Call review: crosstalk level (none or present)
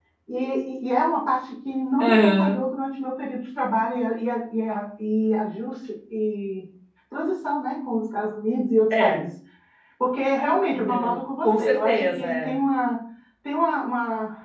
present